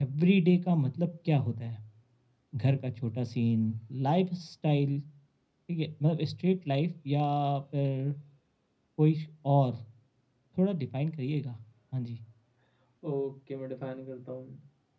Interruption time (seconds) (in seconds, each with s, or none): none